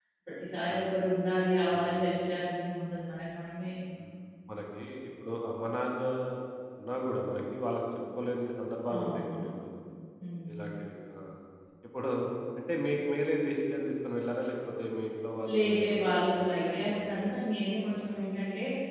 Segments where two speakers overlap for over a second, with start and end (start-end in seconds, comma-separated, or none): 15.5-17.2